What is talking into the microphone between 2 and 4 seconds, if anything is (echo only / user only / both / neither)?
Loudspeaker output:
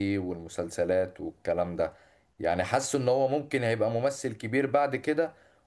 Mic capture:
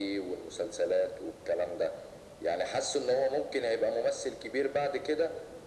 echo only